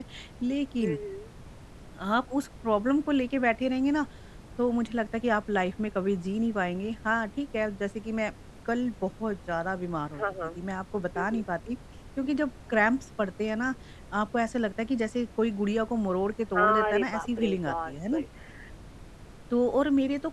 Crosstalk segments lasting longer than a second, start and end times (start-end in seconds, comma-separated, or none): 16.6-18.2